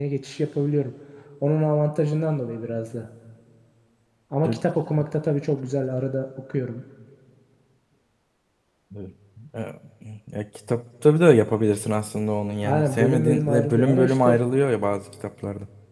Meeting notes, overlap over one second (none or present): present